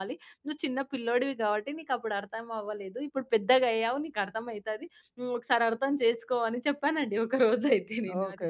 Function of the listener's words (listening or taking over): taking over